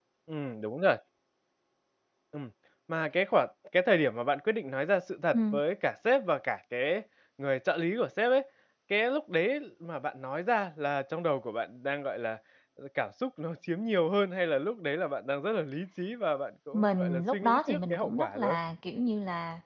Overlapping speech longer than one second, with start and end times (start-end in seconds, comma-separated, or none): 16.7-18.6